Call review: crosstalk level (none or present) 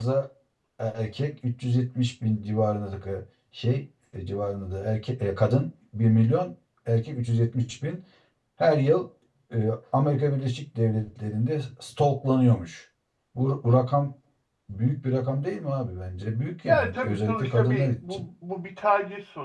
present